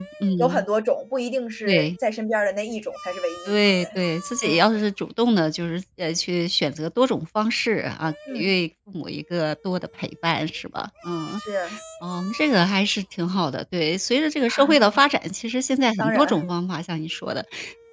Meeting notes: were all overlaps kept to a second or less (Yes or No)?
Yes